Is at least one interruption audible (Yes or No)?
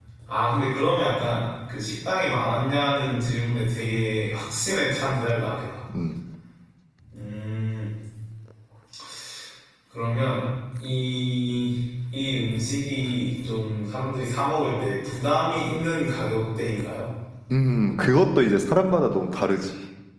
No